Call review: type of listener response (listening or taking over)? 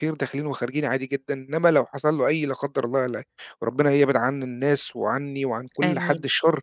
listening